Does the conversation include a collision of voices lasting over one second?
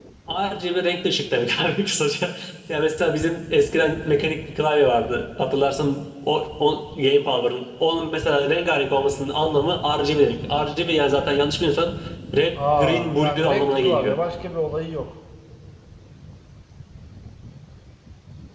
Yes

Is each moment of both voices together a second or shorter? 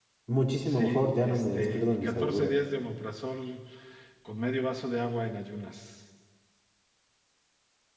No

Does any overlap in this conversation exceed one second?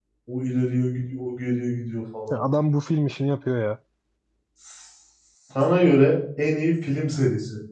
No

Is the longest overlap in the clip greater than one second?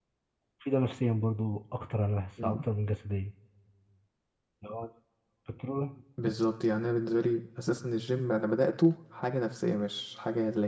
No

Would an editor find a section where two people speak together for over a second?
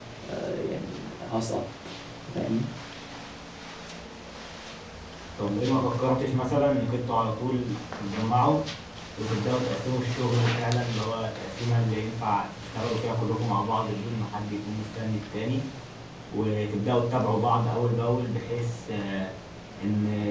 No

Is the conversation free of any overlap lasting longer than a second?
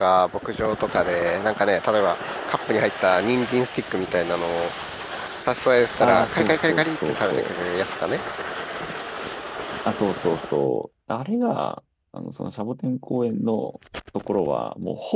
No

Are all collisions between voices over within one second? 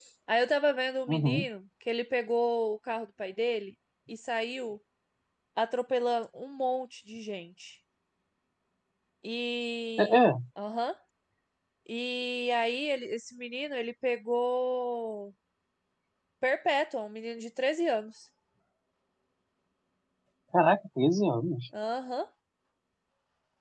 Yes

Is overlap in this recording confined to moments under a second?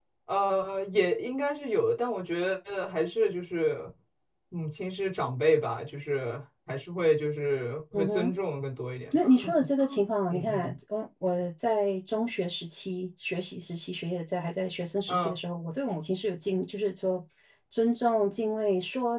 Yes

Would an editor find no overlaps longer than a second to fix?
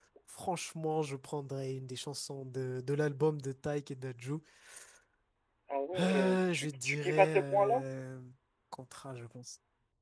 No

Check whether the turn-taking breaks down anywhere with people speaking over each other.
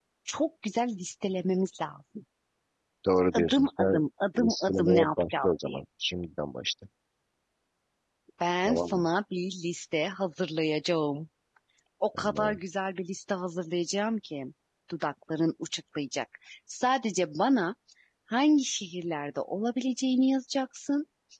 Yes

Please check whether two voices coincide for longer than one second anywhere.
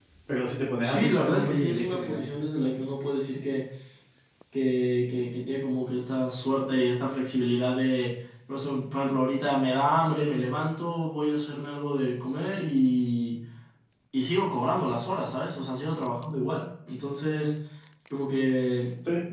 Yes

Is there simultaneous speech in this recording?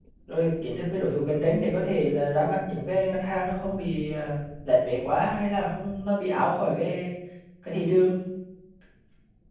No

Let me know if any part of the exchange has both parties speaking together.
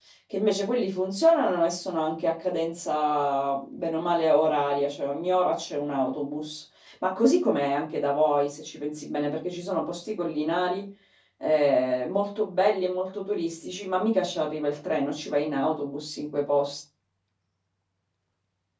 No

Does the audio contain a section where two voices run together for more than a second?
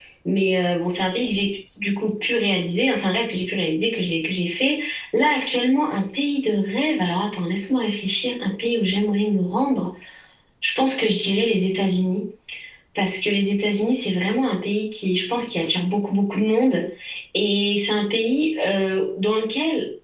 No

